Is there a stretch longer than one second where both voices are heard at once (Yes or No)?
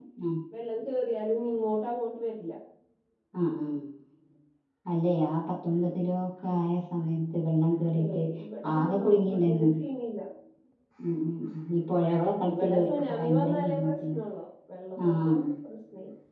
Yes